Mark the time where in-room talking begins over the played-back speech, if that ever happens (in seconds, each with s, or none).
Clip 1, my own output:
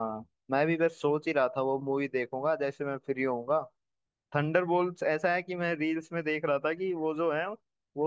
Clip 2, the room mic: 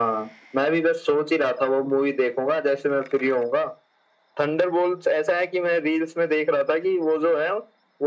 none